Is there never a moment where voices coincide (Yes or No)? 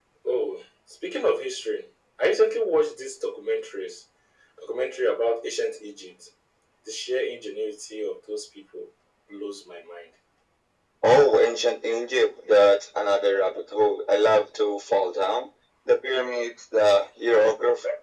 Yes